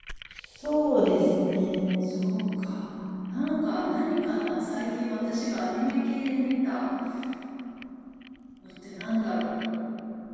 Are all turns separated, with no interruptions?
Yes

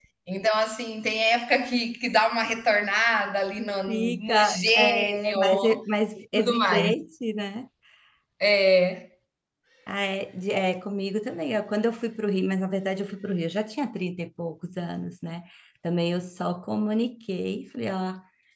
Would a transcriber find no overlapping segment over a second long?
No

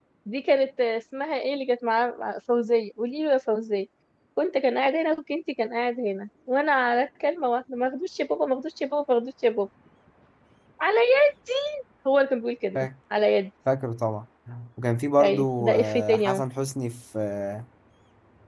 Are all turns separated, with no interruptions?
No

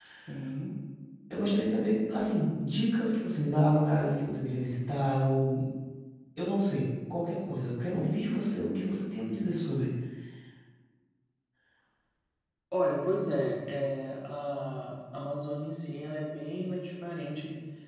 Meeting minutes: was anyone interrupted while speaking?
No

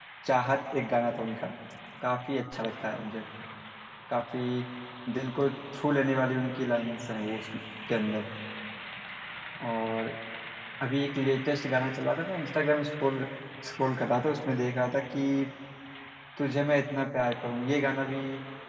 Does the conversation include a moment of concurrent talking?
No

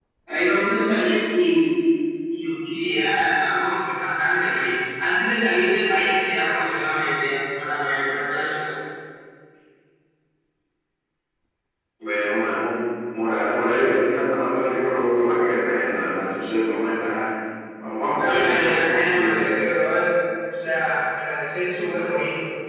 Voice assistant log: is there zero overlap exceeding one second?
No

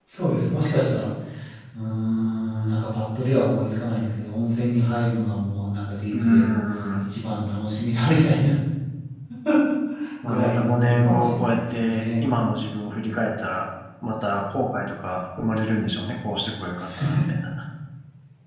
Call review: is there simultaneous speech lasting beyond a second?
Yes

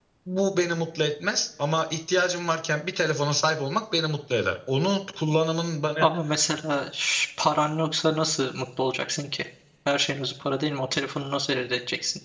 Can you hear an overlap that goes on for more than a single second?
No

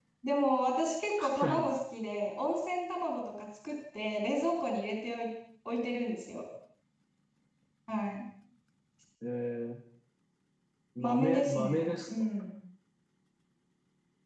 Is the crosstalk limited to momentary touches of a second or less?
No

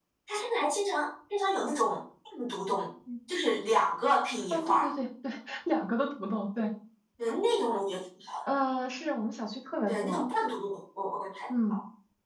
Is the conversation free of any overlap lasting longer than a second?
Yes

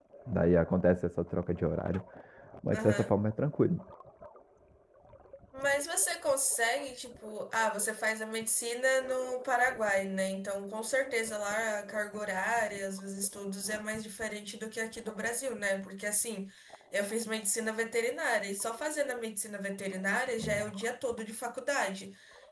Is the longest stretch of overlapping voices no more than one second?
Yes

